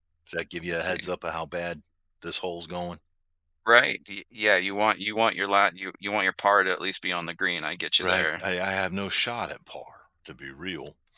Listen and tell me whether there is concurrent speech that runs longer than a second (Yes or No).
No